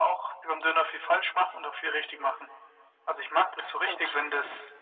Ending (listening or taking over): listening